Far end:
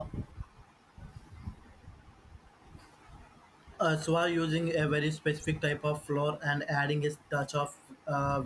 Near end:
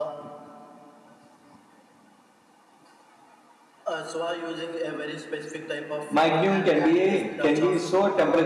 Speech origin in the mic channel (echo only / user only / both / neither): both